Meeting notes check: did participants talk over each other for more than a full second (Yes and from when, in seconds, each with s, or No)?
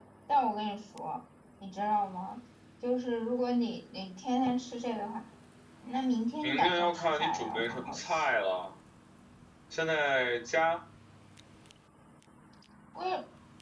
Yes, from 6.4 s